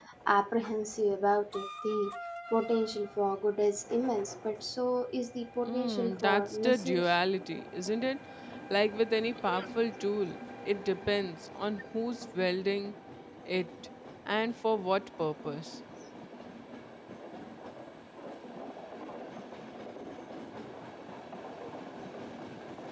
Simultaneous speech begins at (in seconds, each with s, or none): 5.6 s